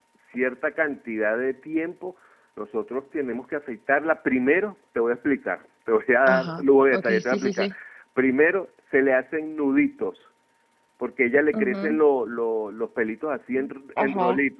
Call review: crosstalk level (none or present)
present